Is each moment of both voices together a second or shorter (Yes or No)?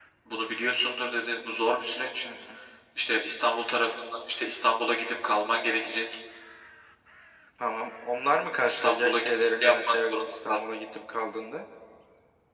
No